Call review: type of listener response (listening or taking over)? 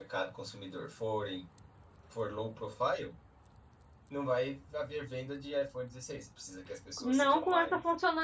taking over